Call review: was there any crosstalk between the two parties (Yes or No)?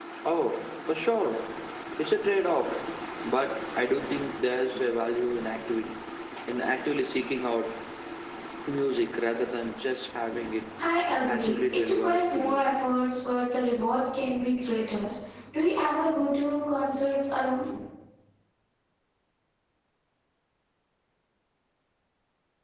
Yes